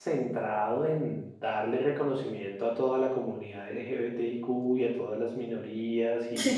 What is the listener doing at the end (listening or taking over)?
listening